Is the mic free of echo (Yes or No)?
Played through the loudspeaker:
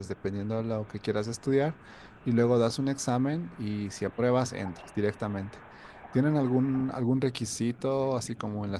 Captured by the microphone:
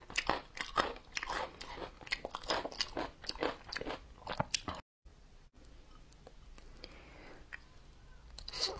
Yes